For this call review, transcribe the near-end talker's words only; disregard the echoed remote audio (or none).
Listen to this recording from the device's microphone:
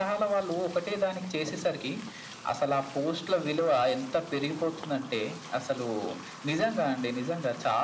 none